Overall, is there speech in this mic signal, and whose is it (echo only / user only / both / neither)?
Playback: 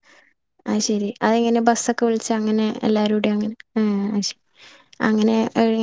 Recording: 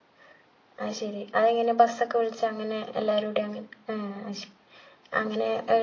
echo only